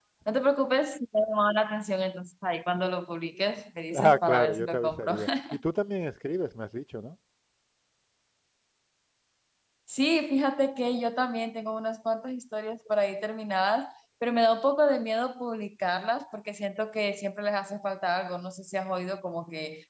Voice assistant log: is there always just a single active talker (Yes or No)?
No